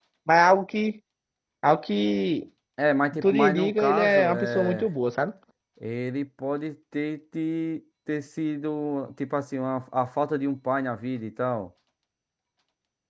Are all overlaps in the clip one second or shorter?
No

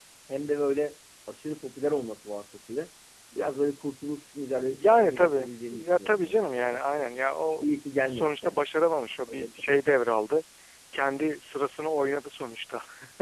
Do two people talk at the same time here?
Yes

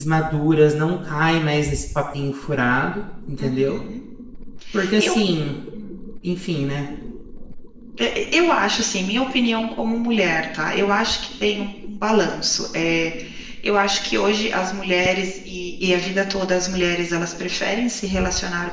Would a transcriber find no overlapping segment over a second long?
Yes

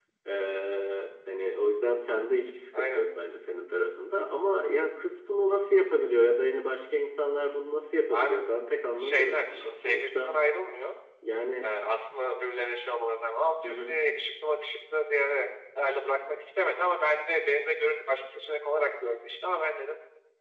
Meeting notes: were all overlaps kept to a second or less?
No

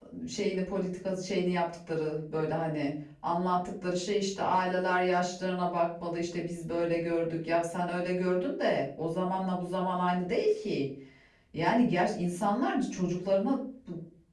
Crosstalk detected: No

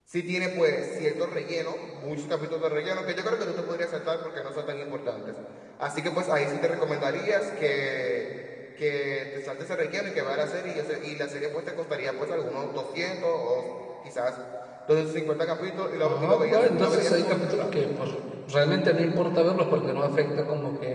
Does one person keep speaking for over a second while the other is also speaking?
Yes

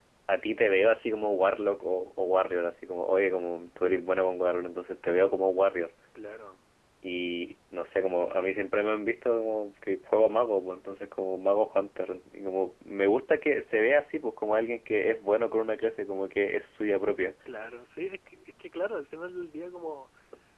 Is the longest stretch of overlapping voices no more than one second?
Yes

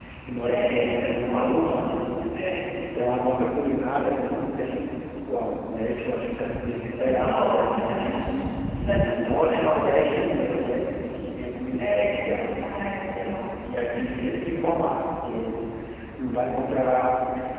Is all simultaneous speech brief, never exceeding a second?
No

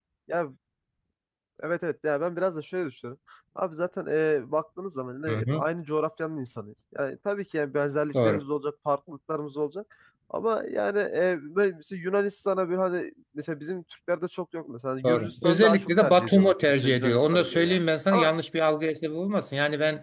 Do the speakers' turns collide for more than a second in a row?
Yes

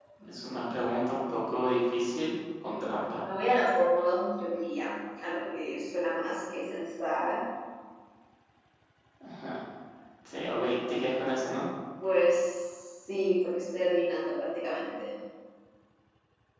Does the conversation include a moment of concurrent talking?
No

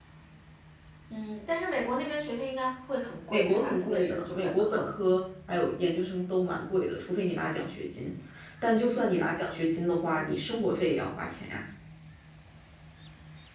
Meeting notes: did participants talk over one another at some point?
Yes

